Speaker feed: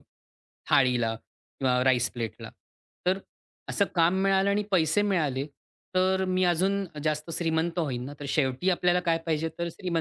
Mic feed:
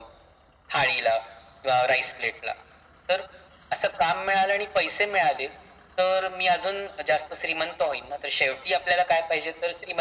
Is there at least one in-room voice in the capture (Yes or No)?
No